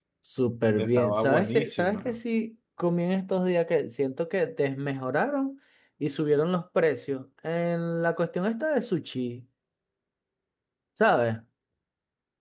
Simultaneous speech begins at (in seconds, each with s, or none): 0.8 s